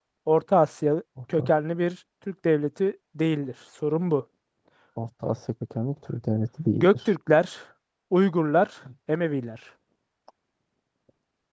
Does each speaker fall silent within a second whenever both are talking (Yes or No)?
Yes